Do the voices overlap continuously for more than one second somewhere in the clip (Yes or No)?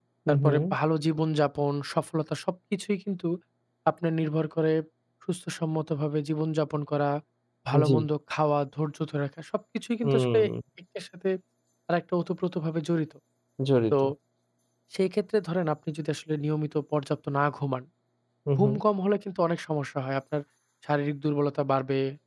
No